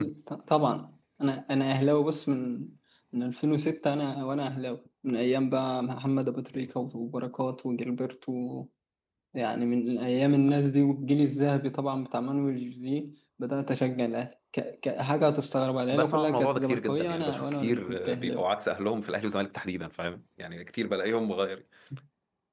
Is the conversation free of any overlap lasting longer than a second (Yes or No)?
No